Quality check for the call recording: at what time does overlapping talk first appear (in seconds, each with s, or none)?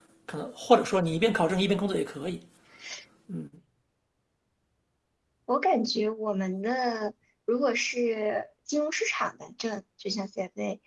none